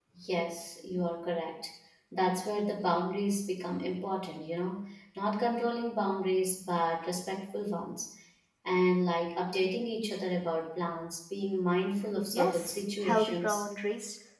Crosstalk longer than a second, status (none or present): present